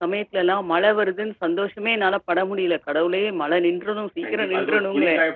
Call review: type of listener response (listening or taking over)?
taking over